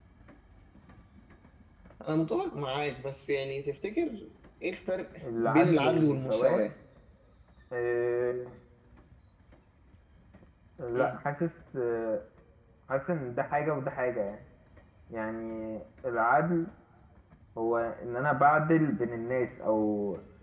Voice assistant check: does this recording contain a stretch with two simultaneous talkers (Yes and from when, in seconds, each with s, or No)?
Yes, from 5.4 s